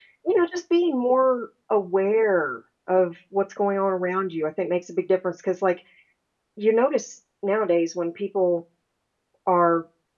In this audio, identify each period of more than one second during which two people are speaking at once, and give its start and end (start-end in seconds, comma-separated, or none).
none